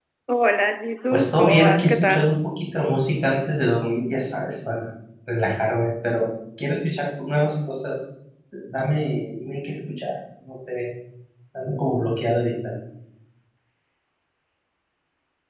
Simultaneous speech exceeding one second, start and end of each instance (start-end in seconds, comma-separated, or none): 1.1-2.4